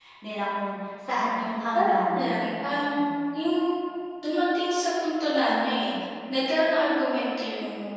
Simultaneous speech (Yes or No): Yes